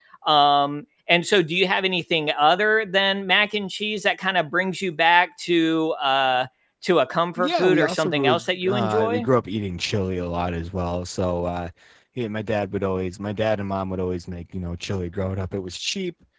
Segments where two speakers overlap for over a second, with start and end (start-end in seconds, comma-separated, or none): 7.4-9.2